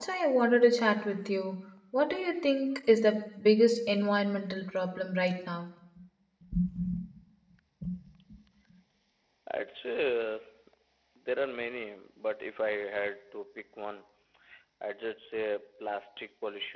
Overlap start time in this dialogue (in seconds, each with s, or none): none